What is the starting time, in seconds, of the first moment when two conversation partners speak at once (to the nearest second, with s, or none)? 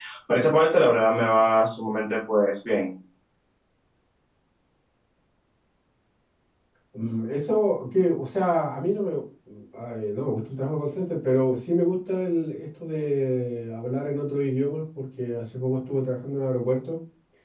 none